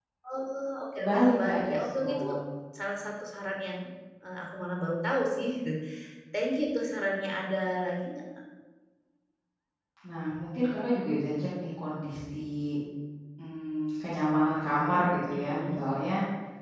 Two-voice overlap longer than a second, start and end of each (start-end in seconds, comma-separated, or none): 1.0-2.2